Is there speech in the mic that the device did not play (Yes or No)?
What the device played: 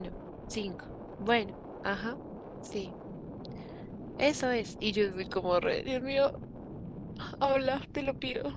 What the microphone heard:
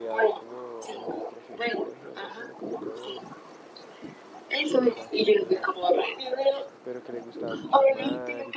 Yes